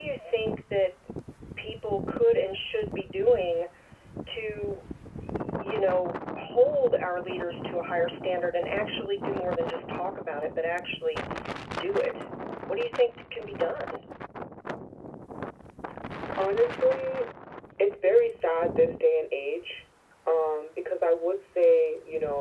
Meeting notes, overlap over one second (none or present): none